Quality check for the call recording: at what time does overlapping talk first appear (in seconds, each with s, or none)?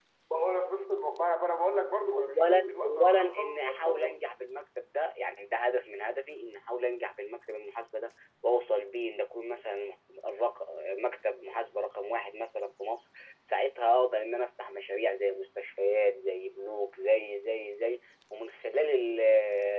2.1 s